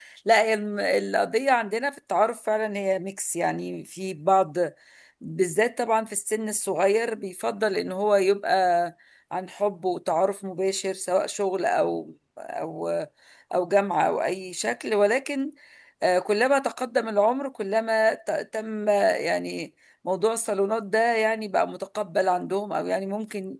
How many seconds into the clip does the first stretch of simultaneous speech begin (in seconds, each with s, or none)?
none